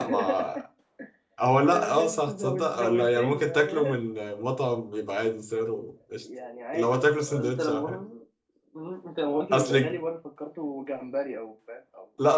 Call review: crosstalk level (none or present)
present